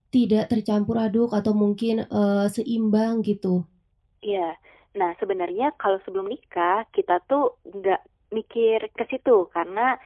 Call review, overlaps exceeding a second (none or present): none